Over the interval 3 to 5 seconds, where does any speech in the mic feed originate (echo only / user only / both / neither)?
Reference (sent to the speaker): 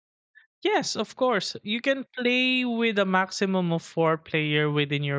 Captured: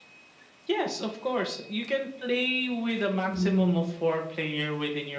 both